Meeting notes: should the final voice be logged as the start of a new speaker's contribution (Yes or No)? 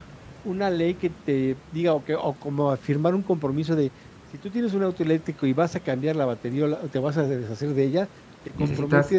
No